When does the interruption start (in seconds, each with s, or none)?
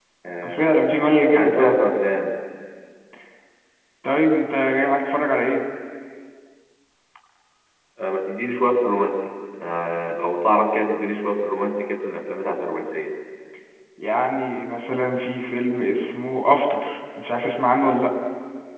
0.6 s